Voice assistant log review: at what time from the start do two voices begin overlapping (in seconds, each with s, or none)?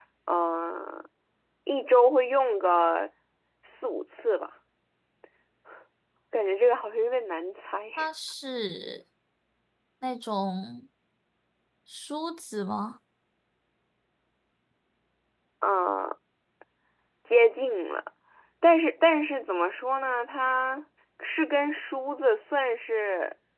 none